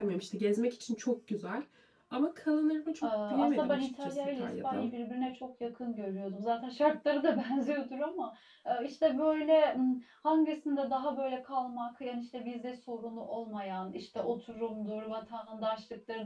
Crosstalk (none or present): present